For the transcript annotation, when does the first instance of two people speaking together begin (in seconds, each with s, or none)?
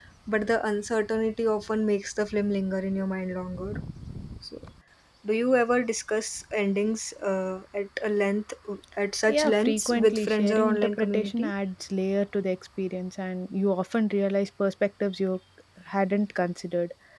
9.3 s